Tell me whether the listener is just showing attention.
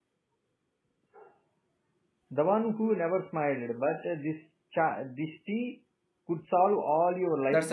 No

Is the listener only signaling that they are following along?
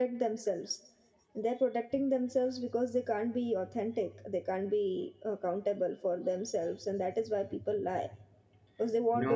No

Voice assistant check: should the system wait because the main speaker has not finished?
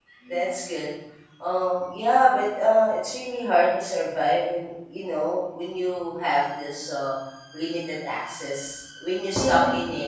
Yes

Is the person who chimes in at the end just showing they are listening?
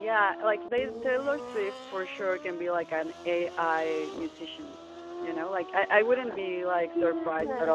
Yes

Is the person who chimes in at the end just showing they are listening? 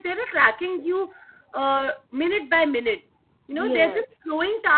Yes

